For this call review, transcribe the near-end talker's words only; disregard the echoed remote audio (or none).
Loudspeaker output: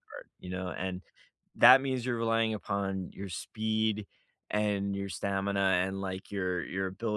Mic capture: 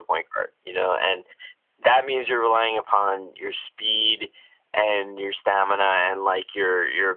none